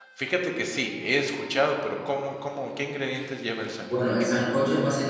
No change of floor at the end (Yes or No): No